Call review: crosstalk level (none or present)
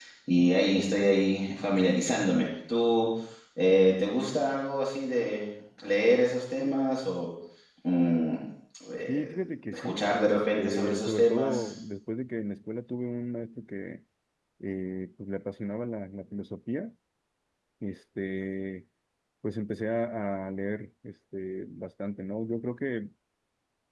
present